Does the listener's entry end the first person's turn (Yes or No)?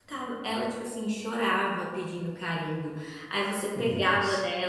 No